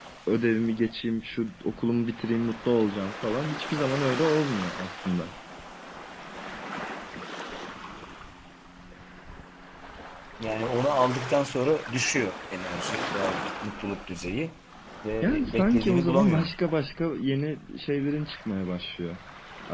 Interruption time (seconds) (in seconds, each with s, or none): 15.2 s